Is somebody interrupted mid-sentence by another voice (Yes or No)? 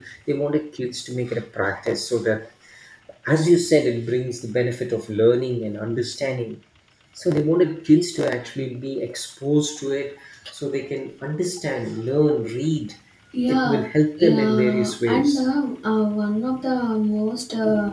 Yes